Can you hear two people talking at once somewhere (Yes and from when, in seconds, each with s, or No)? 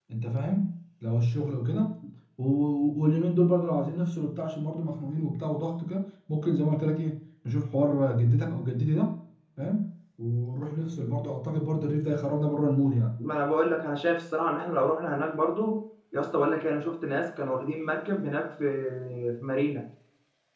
No